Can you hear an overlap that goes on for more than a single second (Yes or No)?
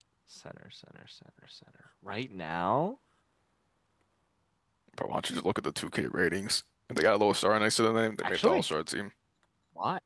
No